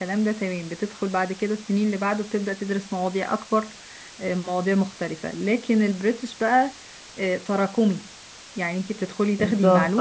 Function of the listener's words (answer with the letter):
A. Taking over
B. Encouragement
B